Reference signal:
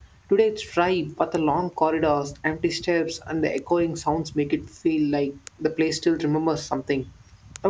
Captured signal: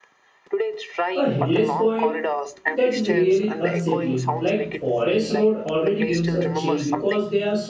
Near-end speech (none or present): present